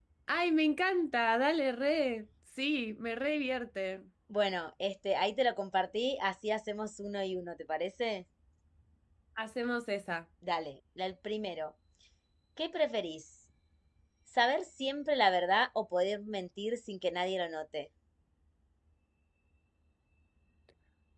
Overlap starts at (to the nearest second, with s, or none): none